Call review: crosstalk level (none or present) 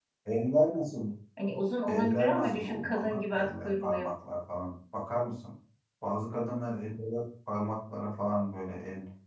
present